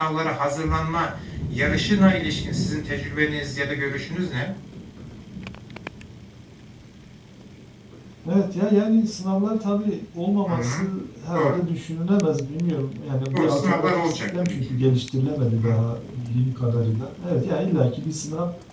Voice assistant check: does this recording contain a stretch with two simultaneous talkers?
Yes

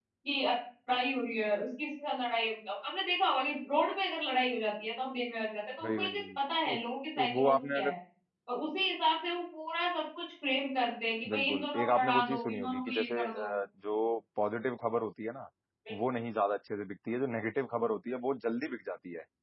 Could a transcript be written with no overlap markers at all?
No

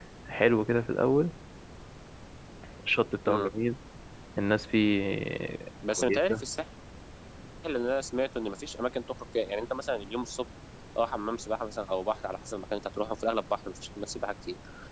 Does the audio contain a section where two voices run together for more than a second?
No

